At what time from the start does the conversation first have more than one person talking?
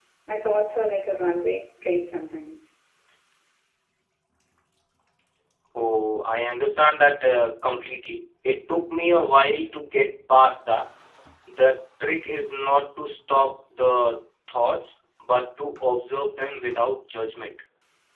none

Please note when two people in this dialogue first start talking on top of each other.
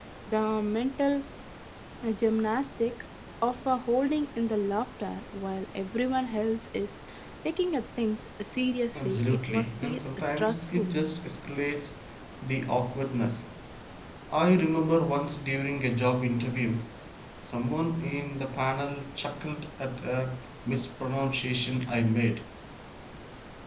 8.9 s

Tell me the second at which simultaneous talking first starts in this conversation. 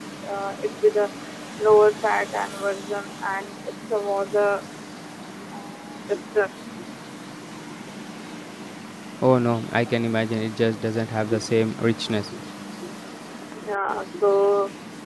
none

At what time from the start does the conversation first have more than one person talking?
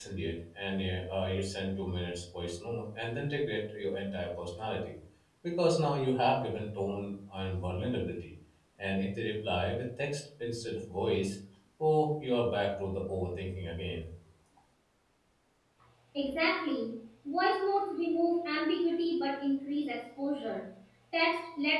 none

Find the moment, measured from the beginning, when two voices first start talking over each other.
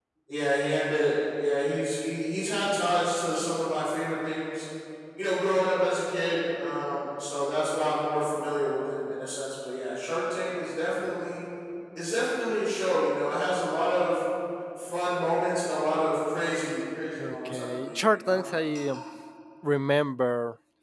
17.2 s

